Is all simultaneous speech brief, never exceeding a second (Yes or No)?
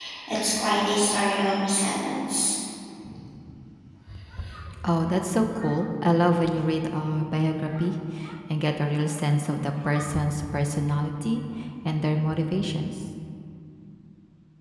Yes